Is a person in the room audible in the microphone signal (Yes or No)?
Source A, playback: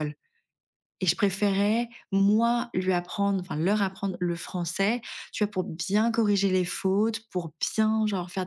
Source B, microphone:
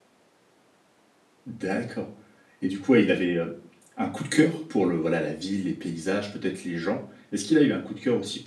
Yes